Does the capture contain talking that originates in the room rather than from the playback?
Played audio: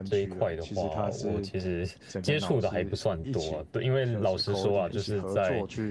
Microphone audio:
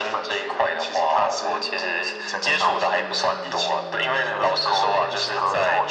No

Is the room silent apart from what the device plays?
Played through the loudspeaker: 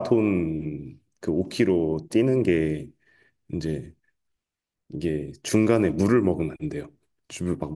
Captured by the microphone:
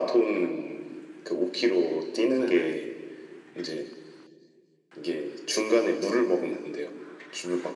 No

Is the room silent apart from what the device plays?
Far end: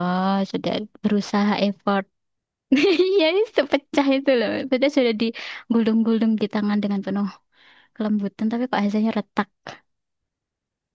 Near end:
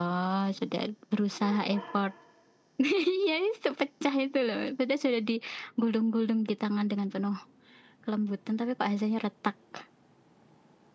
No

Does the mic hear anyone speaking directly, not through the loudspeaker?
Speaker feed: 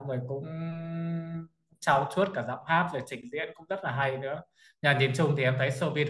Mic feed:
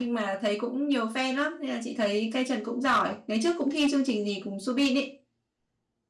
Yes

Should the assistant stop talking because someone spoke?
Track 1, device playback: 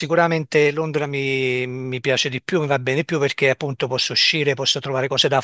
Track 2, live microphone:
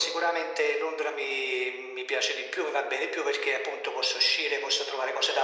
No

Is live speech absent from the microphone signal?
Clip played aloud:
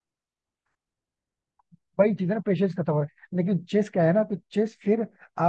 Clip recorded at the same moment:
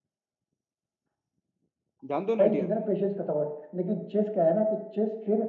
No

